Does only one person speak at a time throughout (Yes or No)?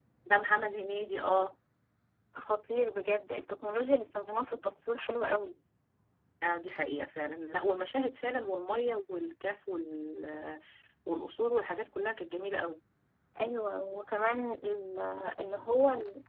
Yes